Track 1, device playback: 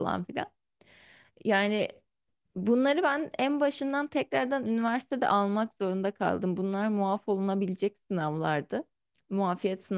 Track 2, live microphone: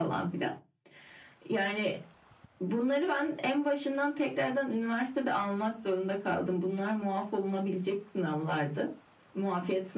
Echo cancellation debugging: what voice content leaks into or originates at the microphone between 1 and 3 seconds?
echo only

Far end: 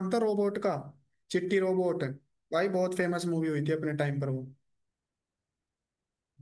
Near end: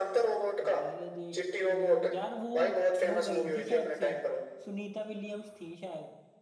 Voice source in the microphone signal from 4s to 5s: both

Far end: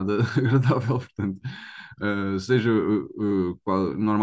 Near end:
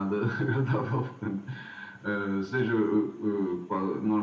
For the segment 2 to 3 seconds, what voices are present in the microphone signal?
echo only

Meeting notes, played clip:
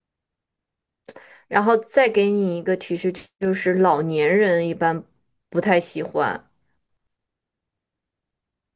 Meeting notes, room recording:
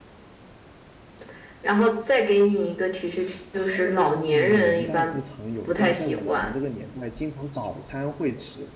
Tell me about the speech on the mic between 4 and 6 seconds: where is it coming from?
both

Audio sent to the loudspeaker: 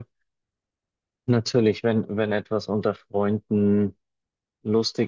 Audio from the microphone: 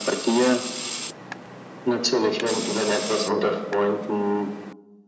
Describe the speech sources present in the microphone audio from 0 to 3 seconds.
echo only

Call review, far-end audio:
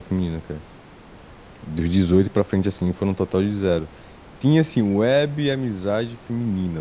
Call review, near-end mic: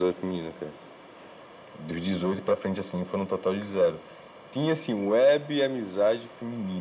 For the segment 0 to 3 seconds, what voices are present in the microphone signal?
echo only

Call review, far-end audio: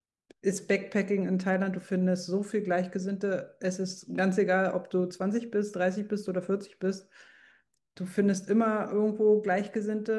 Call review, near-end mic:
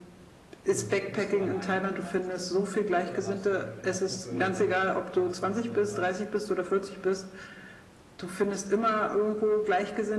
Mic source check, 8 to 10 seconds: echo only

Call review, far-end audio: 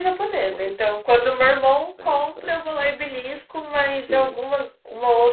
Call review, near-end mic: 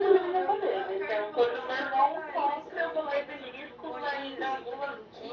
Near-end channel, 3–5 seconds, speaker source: both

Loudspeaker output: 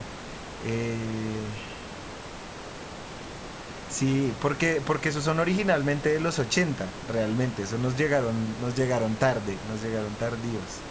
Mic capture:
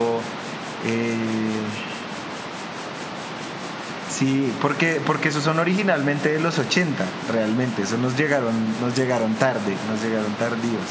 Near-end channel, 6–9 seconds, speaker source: echo only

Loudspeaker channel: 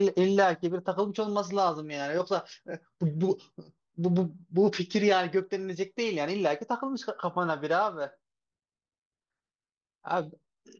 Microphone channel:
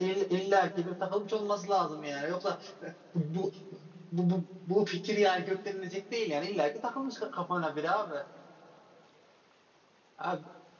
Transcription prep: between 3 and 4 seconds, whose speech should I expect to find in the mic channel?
echo only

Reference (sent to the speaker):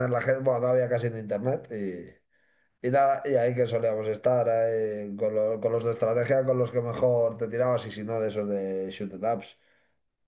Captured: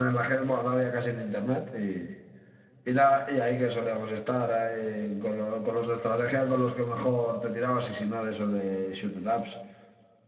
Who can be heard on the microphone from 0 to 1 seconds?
echo only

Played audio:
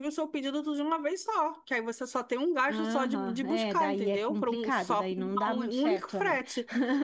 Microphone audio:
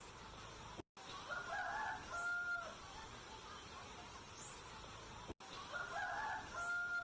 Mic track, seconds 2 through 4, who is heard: neither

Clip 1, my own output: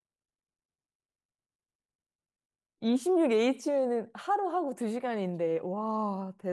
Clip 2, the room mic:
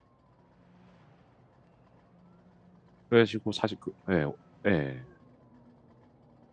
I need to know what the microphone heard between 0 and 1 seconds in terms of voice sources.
neither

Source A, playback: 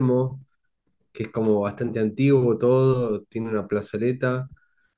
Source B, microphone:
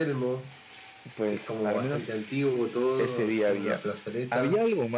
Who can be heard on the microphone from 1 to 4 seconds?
both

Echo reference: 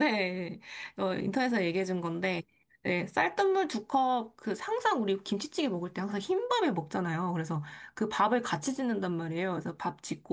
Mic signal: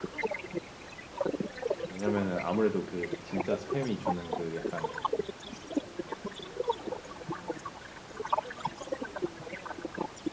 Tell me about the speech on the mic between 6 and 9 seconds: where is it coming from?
echo only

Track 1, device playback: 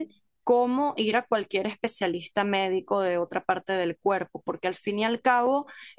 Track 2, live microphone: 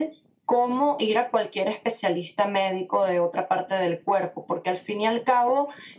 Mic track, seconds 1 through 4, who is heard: echo only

